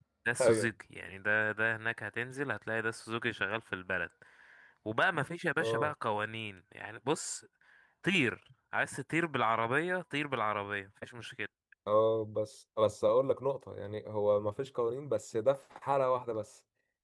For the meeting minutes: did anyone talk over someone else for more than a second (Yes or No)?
No